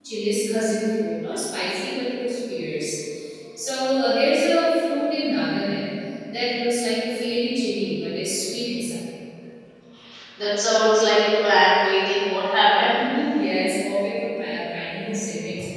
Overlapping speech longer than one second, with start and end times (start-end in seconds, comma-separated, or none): none